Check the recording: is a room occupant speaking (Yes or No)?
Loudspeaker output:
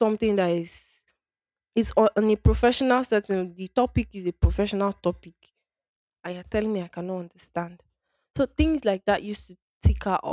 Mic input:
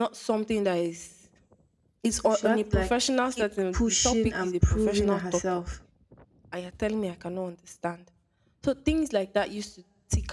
Yes